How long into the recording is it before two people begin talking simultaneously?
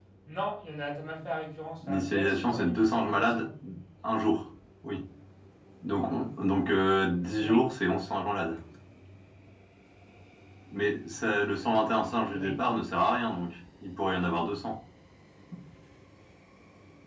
2 s

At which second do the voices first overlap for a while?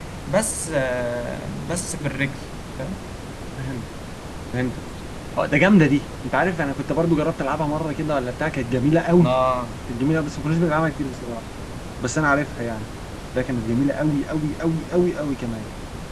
none

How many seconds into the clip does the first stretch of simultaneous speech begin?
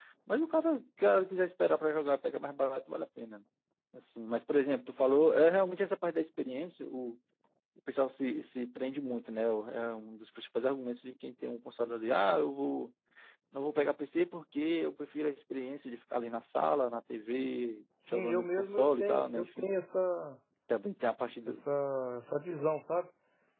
18 s

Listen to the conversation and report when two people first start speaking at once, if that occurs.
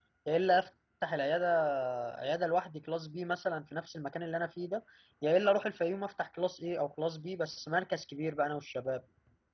none

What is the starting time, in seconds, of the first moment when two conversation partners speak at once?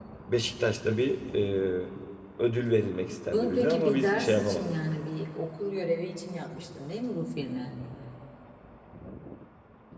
3 s

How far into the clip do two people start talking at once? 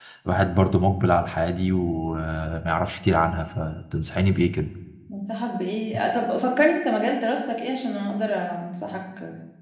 none

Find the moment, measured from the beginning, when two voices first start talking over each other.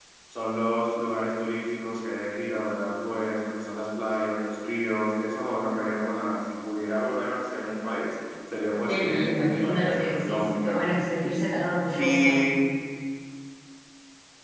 9 s

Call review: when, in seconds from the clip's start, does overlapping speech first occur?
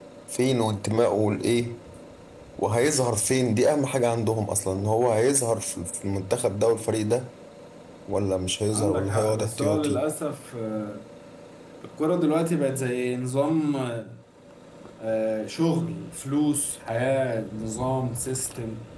9 s

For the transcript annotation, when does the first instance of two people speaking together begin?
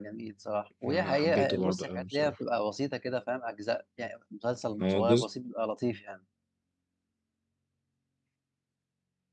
1 s

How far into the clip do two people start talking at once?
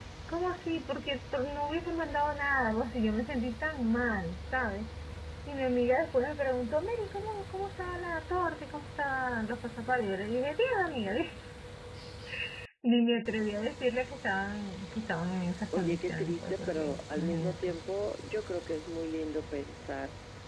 16 s

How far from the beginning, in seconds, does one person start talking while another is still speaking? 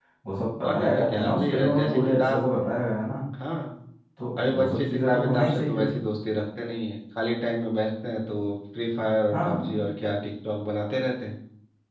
1 s

